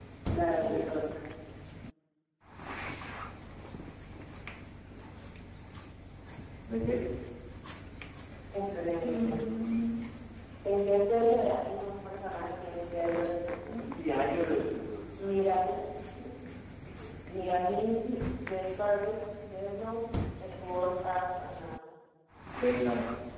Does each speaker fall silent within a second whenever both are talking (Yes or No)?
Yes